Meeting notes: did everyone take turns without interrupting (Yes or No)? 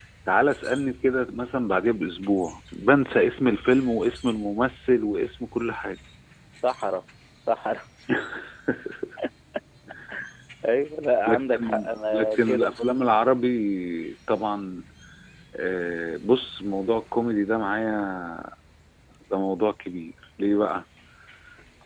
No